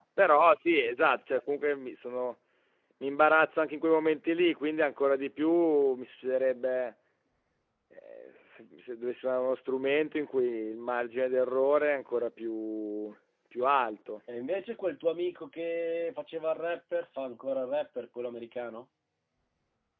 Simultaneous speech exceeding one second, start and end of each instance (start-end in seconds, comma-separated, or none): none